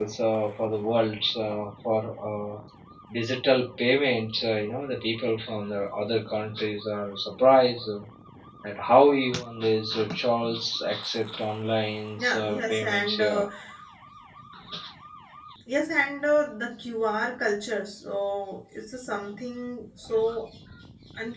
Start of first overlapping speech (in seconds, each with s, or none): 12.2 s